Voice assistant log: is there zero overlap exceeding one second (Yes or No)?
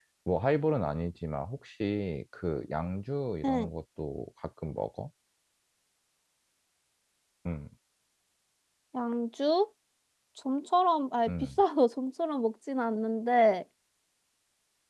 Yes